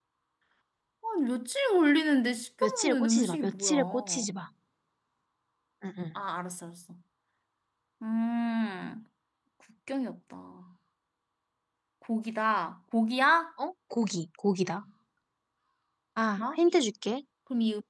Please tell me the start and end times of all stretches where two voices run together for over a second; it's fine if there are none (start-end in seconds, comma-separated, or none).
2.6-4.2